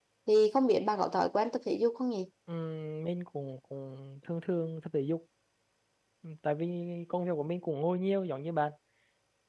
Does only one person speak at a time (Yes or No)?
Yes